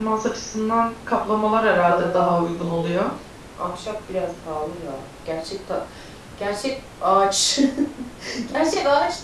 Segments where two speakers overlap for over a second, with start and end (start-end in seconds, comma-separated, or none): 1.6-3.0